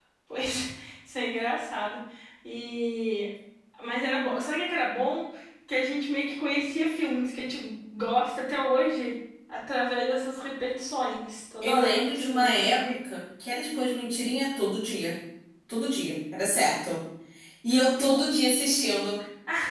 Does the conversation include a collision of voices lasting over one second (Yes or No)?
Yes